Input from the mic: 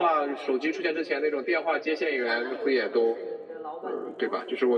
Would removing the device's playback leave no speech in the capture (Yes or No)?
No